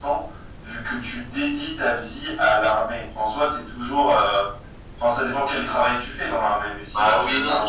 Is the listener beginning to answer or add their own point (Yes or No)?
Yes